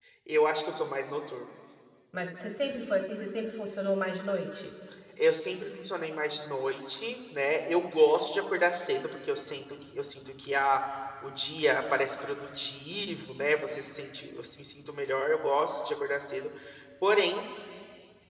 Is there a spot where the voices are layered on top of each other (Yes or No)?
No